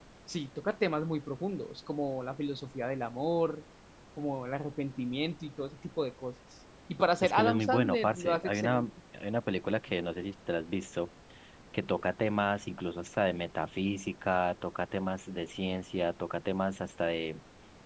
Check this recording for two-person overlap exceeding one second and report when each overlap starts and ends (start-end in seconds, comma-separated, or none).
7.2-8.9